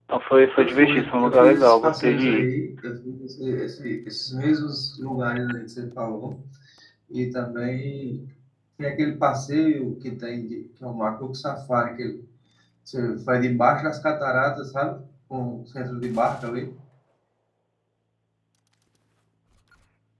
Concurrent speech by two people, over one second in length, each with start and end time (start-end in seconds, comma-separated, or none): 0.6-2.5